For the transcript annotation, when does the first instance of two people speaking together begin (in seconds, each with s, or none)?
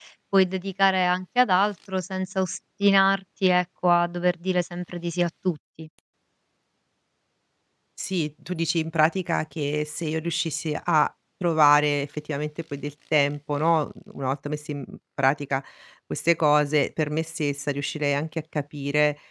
none